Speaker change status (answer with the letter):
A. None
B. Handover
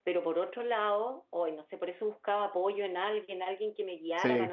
A